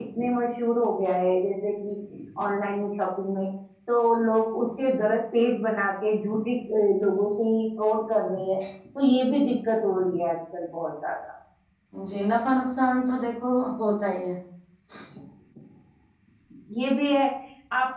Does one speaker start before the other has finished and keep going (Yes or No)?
No